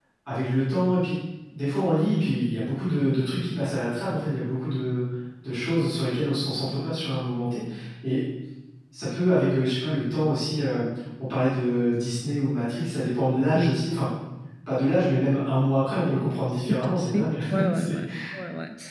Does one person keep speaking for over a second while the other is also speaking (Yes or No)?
Yes